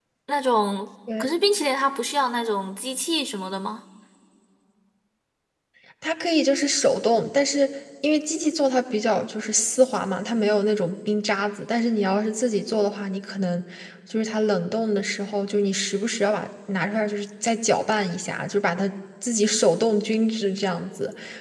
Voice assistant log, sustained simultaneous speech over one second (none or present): none